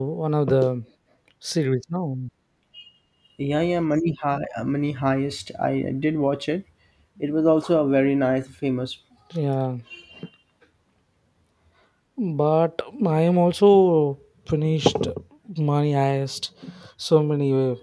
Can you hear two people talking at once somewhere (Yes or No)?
No